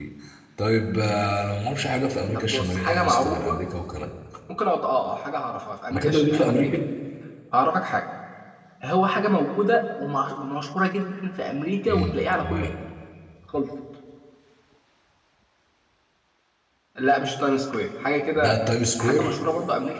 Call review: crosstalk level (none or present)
present